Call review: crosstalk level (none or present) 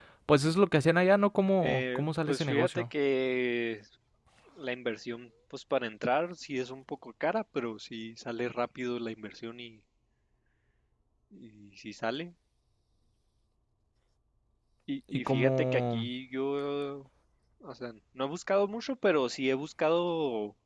present